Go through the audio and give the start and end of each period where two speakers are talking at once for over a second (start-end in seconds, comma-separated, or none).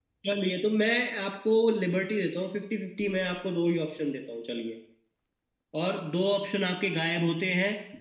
none